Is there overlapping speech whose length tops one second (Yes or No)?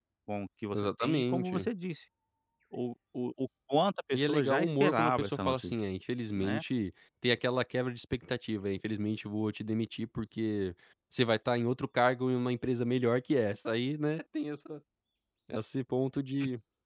Yes